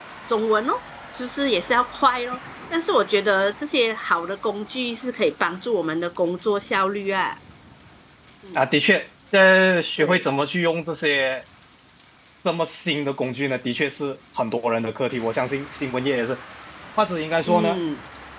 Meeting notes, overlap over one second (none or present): none